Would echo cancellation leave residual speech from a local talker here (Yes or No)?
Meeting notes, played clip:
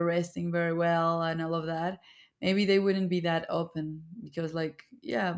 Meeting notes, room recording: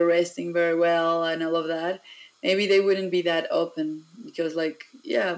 No